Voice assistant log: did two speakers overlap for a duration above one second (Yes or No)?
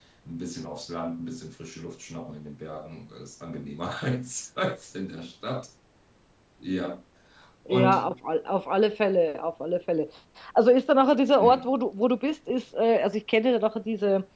No